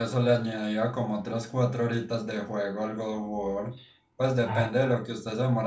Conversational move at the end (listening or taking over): listening